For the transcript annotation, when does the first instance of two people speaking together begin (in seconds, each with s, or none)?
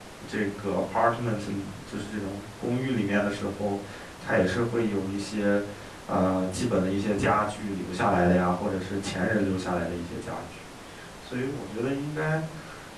none